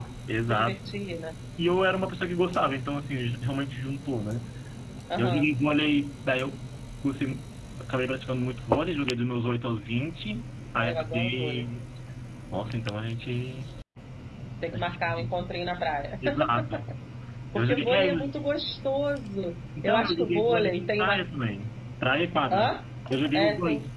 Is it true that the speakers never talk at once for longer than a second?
No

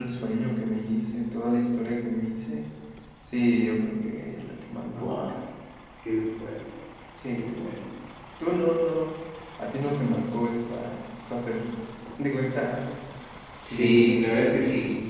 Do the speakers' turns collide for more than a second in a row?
No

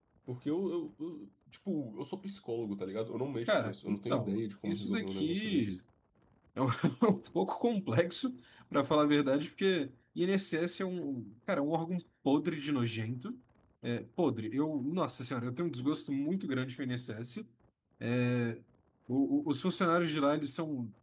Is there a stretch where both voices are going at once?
Yes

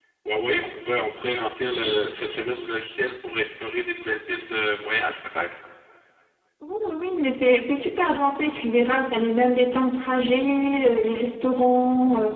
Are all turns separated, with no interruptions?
Yes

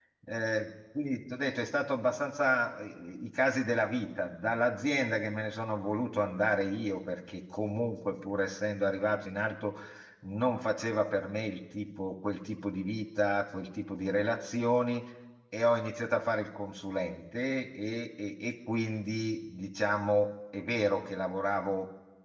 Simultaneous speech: No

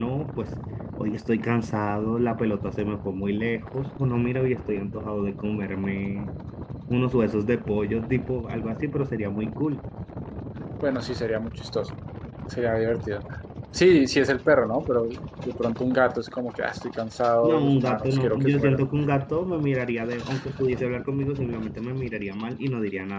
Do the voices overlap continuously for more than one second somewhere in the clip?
Yes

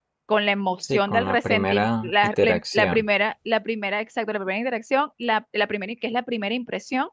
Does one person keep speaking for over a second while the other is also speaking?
Yes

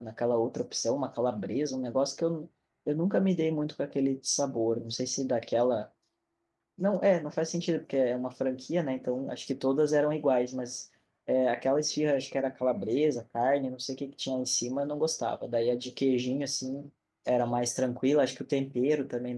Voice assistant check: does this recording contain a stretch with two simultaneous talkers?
No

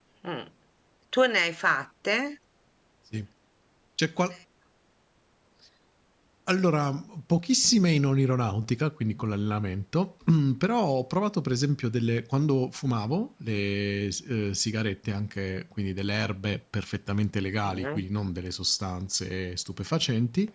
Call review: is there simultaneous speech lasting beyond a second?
No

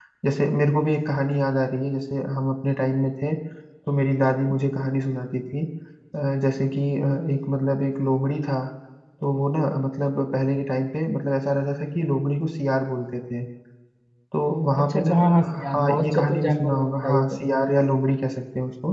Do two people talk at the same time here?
Yes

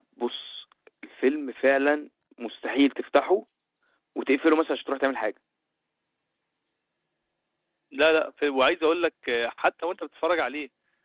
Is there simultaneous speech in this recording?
No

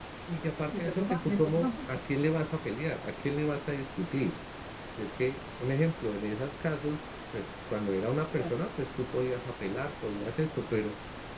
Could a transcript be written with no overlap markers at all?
No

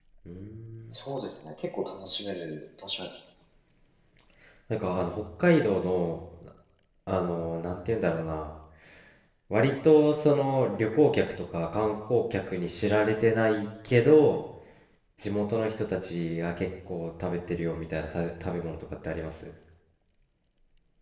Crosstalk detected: No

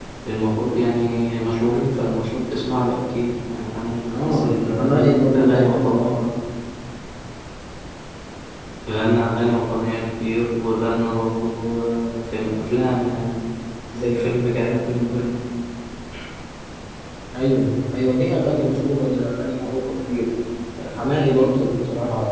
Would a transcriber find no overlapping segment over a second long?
No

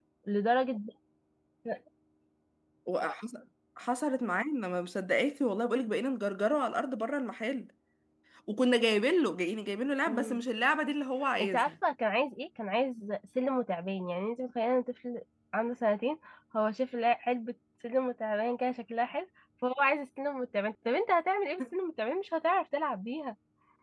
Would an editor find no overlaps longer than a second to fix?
Yes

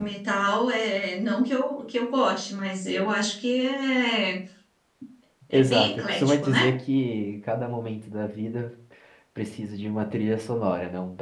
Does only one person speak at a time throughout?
No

